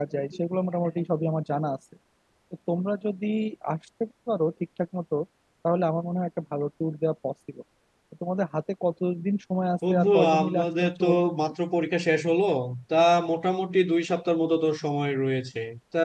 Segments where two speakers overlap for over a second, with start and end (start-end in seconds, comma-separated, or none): 9.9-11.3